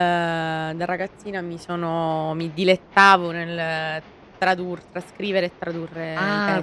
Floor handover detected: Yes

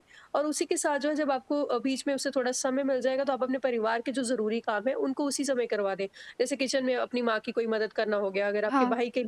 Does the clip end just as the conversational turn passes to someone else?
No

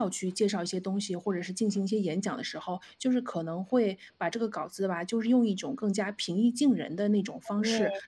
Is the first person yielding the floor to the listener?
No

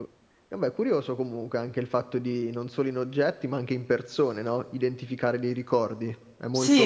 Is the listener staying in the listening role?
No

